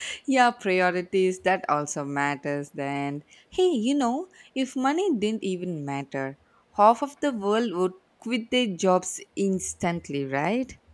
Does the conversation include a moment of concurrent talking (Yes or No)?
No